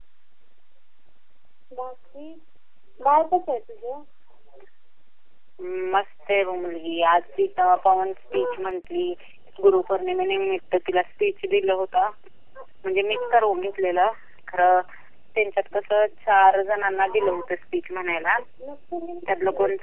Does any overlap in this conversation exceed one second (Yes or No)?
No